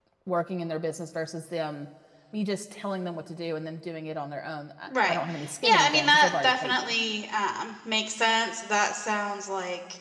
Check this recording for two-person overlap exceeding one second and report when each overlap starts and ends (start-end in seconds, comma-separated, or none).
5.6-6.9